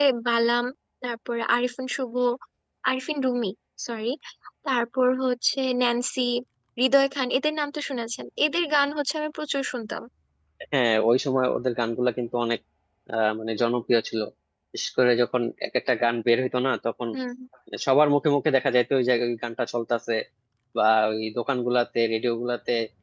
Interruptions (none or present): none